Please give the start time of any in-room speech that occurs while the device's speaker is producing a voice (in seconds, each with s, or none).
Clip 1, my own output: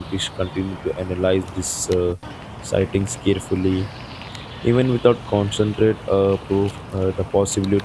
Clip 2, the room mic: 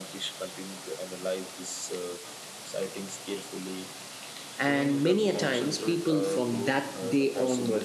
4.6 s